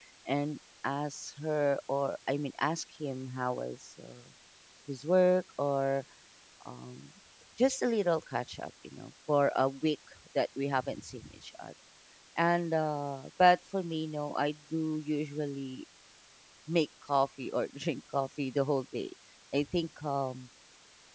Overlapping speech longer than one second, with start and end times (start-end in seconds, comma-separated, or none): none